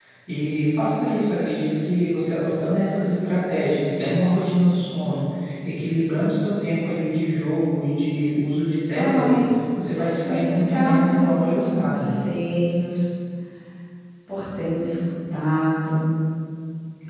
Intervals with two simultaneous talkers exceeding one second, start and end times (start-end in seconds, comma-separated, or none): 10.2-12.1